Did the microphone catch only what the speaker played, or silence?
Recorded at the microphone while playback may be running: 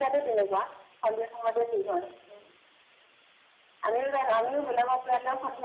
Yes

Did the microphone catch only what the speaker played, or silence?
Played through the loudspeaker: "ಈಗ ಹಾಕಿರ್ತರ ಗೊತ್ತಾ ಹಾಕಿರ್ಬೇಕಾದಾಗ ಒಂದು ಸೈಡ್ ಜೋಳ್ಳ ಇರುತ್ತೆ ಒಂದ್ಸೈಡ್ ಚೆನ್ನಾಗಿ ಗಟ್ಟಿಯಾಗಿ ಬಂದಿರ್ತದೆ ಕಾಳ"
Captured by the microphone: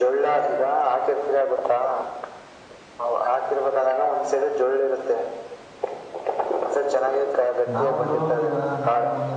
No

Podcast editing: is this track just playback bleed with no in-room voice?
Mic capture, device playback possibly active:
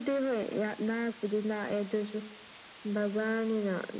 Yes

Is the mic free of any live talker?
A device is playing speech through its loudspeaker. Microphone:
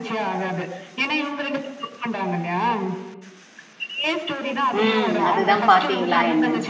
No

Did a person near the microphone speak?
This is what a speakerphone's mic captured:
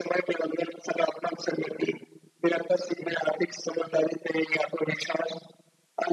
No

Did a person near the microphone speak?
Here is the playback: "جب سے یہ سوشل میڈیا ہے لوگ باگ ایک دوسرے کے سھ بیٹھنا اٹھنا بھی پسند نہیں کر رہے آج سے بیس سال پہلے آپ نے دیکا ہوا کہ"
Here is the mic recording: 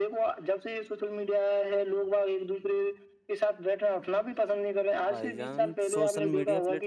Yes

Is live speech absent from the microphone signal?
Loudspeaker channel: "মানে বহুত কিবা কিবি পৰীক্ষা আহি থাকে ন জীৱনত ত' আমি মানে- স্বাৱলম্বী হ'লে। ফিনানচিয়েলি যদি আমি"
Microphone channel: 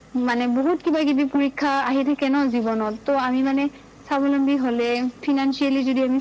Yes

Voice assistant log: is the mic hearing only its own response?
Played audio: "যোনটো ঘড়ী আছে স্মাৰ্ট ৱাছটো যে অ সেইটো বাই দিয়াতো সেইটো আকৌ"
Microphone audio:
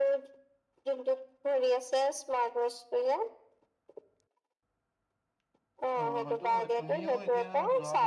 No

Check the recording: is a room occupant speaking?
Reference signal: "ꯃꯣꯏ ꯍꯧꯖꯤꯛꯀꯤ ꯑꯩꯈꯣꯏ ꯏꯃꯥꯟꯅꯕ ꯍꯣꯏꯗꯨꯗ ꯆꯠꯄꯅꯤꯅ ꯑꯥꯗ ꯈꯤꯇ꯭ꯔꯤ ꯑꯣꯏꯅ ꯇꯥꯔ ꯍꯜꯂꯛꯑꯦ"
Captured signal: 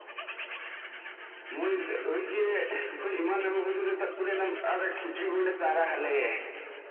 No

